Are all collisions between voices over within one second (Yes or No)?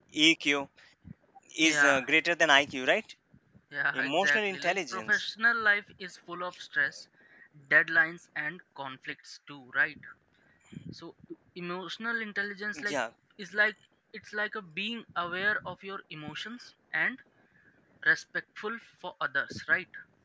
No